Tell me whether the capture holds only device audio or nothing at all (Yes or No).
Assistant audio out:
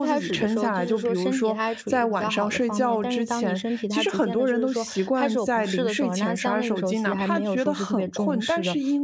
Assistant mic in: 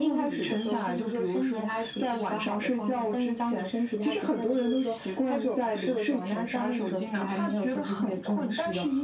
Yes